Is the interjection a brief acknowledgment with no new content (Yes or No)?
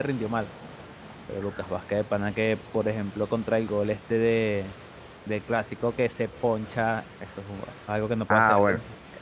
No